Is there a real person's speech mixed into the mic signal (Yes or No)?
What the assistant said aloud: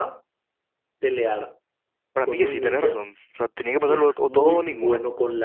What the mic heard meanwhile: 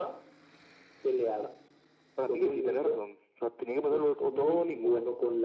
No